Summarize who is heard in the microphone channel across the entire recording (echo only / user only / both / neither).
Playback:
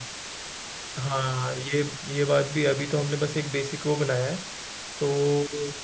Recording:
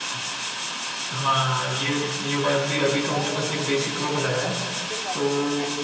both